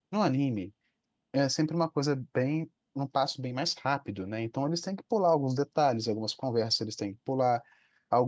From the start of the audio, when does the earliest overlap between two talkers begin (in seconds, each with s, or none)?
none